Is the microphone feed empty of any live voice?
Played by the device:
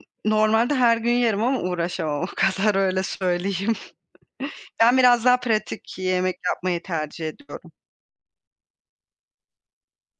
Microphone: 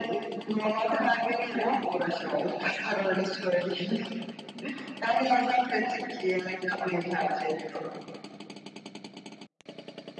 Yes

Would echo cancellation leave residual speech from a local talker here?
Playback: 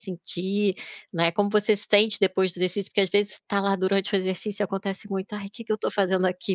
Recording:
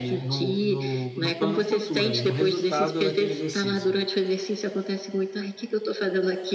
Yes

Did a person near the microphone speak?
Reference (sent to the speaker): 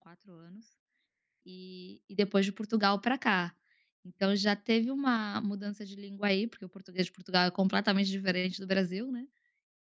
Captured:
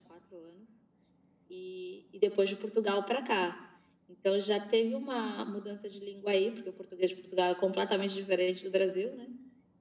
No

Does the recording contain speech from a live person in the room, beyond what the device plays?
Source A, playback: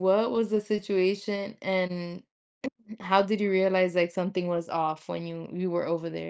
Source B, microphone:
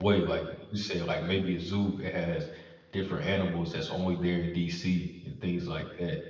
Yes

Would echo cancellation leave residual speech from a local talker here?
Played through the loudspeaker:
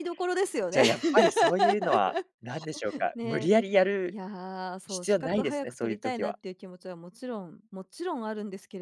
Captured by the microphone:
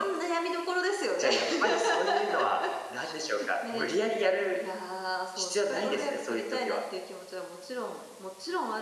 No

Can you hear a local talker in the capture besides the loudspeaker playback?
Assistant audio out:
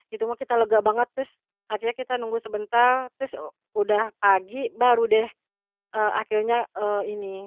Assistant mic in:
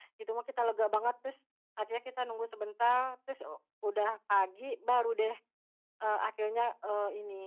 No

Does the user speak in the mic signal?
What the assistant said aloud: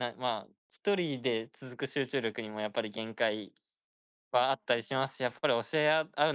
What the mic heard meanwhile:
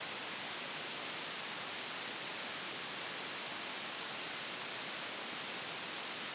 No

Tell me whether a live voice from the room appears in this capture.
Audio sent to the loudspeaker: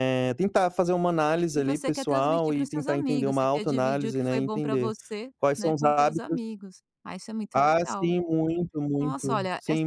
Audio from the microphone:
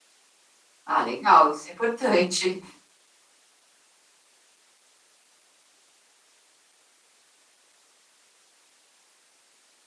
Yes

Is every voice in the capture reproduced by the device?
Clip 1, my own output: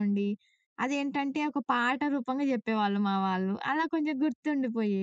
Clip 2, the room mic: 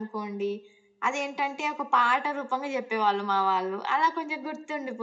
Yes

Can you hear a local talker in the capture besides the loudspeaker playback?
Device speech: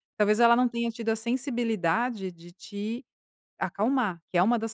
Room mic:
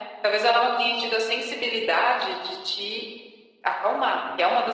No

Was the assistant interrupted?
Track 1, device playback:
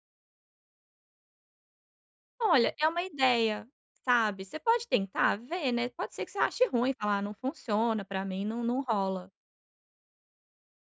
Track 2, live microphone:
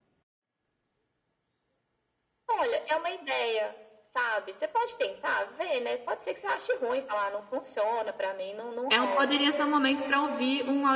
Yes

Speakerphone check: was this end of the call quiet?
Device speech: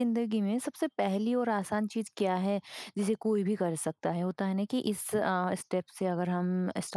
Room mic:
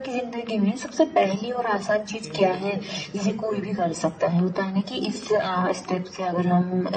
No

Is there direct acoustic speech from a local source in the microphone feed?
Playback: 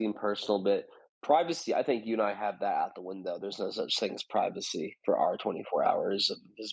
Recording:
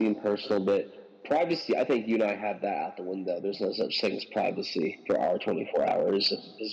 No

